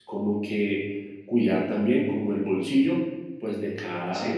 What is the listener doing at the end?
listening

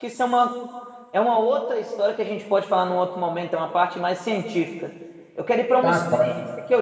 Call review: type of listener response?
listening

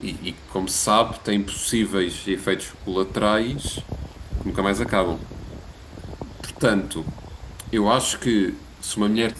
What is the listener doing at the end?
taking over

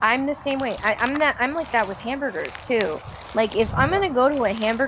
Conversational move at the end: listening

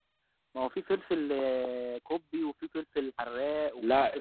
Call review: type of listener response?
taking over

